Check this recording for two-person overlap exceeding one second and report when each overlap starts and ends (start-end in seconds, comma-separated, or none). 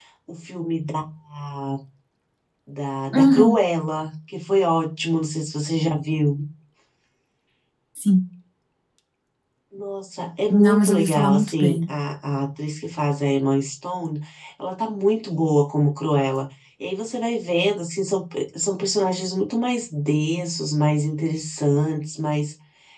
10.5-11.9